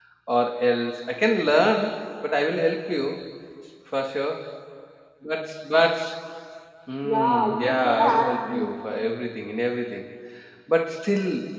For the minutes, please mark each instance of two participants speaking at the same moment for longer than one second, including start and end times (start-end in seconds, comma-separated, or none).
7.0-8.7